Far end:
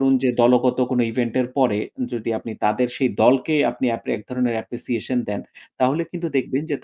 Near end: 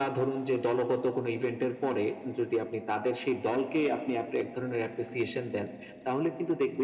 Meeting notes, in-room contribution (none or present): none